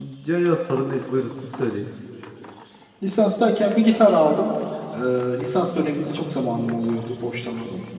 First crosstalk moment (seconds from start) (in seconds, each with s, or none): none